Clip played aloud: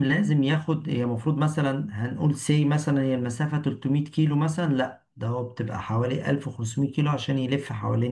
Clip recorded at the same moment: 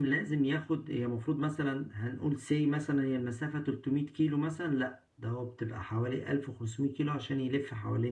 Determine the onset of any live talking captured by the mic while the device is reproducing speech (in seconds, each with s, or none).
none